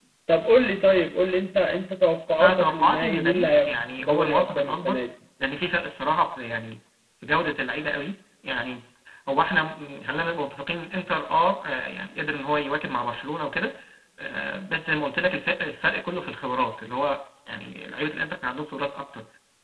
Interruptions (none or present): present